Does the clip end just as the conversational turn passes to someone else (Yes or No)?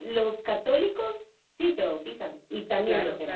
Yes